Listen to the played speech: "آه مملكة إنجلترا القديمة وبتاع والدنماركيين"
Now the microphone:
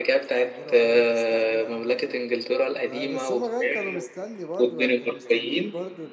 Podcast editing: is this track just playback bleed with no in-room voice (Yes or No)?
No